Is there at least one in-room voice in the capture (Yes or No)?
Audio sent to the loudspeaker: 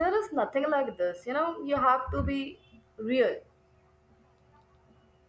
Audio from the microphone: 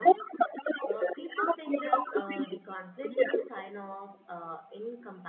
Yes